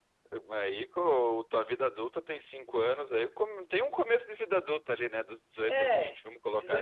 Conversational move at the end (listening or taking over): taking over